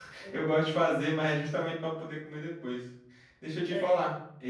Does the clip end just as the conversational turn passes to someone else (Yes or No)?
No